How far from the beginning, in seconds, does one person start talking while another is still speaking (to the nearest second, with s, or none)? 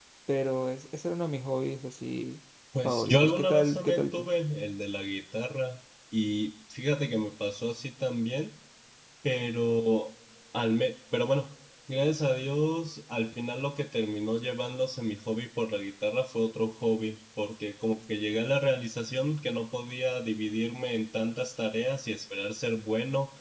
3 s